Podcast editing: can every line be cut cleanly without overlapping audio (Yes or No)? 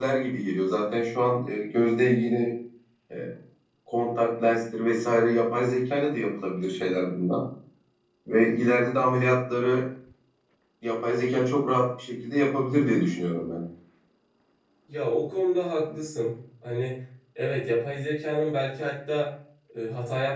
Yes